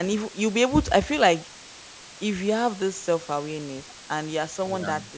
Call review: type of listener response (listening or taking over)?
listening